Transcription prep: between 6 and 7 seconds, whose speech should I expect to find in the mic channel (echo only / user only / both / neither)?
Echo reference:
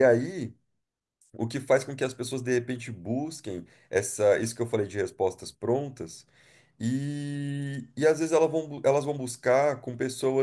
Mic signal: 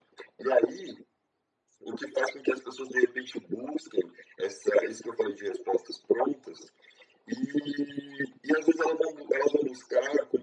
echo only